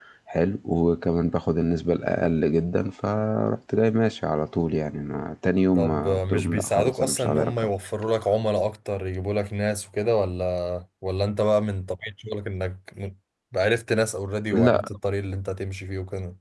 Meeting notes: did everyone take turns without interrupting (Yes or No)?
No